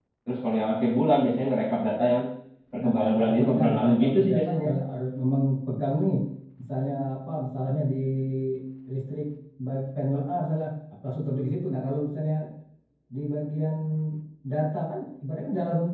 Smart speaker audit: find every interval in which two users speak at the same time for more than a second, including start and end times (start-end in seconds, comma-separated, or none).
2.8-4.7